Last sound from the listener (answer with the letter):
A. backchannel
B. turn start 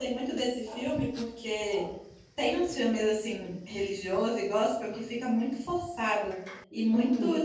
A